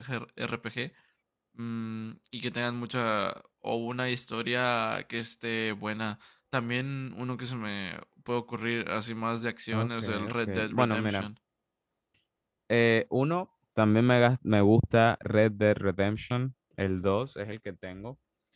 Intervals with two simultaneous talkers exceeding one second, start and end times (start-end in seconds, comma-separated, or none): 9.7-11.3